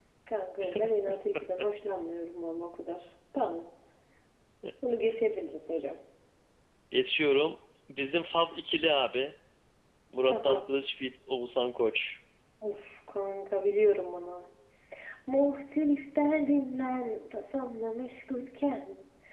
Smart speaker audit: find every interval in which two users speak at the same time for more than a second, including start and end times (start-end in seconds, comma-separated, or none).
none